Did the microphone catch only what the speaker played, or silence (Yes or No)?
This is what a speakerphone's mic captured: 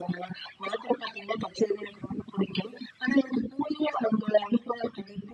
Yes